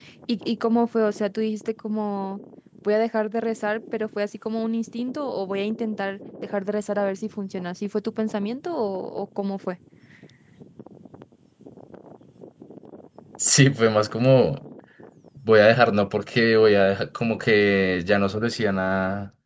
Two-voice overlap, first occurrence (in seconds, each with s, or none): none